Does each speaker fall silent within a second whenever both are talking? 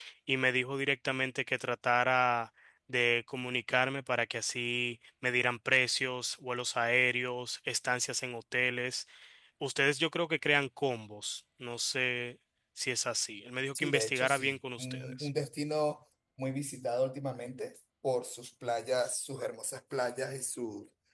No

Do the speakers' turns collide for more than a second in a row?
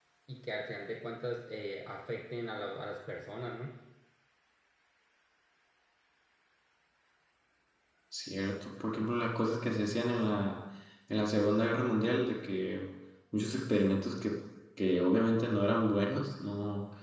No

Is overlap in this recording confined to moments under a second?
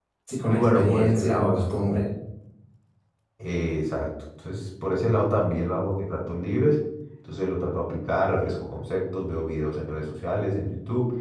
No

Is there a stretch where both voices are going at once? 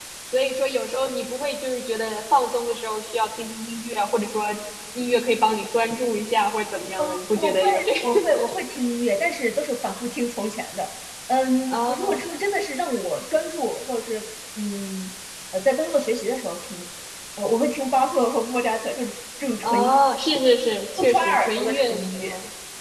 Yes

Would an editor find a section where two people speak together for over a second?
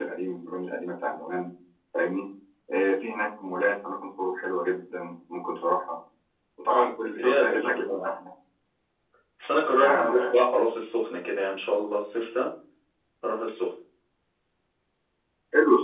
Yes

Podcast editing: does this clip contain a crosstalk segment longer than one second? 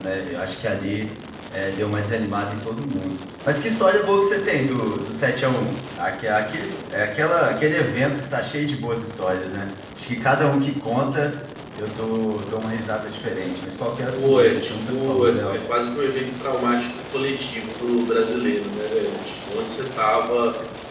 Yes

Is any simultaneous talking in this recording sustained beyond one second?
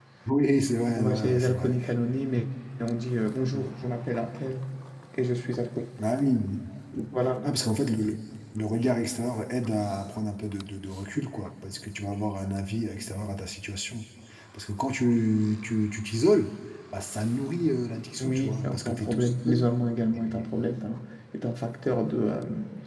Yes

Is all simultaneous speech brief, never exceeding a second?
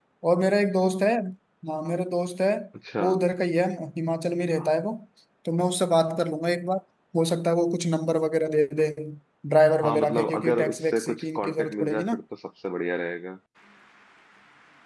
No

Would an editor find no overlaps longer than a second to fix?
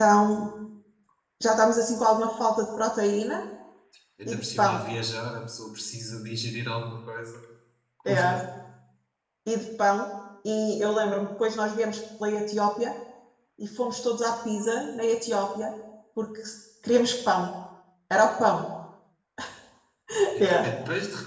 Yes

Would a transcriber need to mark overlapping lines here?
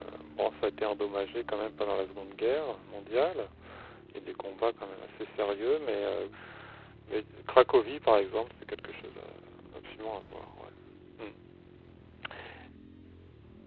No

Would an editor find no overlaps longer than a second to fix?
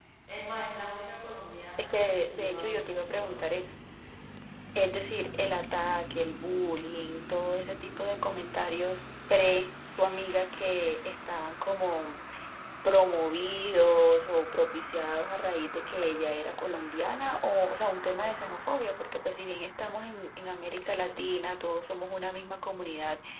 No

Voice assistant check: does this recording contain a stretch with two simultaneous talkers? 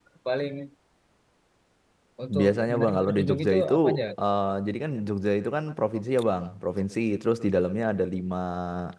Yes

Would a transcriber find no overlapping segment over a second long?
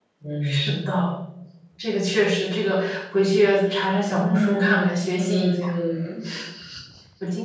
No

